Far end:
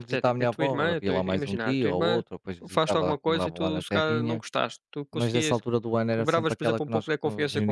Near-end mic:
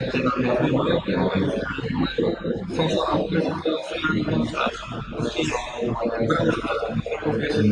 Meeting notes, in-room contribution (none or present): none